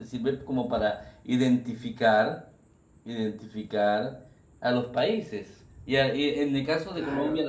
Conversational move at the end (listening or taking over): listening